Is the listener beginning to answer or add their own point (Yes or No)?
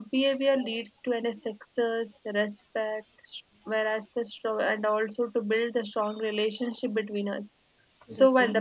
No